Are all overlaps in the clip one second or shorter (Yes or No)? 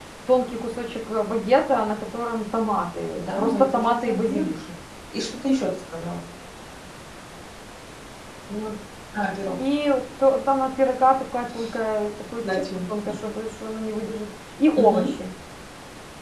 No